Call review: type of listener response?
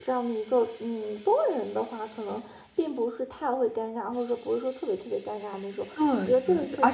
taking over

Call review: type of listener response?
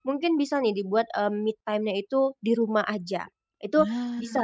listening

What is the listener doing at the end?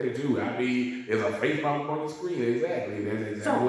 taking over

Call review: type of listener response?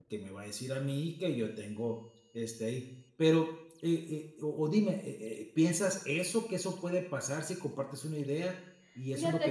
listening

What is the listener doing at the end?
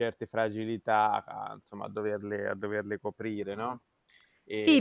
taking over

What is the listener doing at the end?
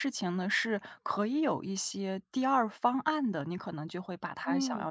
listening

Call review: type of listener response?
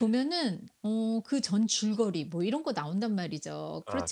listening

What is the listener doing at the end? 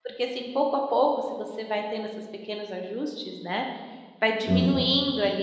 listening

